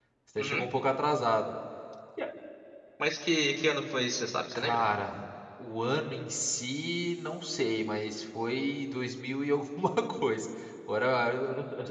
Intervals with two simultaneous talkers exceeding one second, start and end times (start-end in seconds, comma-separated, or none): none